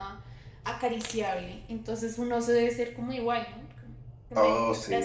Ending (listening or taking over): taking over